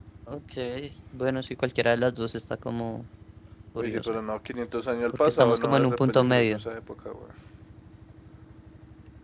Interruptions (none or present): present